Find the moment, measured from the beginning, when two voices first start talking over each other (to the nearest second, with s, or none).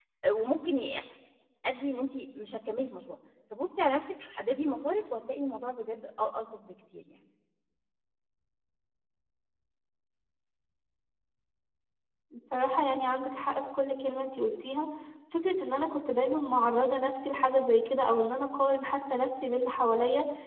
none